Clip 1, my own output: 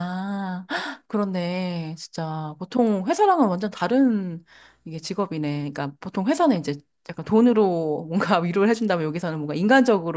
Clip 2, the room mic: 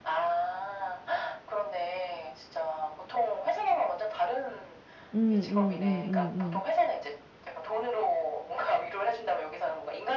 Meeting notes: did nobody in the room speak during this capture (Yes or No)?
No